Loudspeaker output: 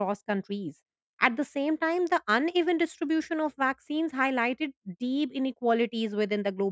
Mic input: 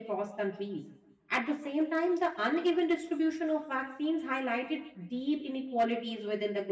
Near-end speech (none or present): none